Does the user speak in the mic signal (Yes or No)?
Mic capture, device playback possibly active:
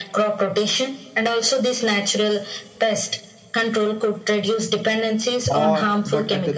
Yes